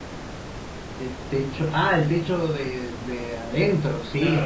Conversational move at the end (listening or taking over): taking over